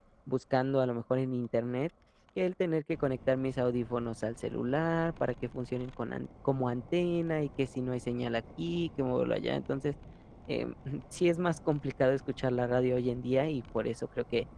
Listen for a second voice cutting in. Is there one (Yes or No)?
No